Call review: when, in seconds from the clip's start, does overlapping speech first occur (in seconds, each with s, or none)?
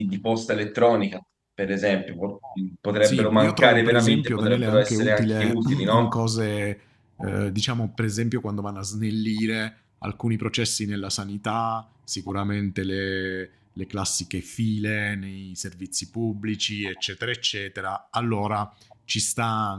3.0 s